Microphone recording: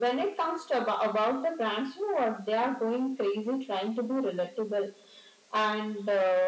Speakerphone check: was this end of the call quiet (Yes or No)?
Yes